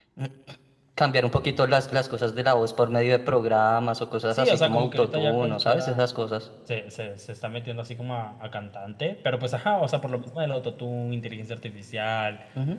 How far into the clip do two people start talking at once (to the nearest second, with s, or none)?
4 s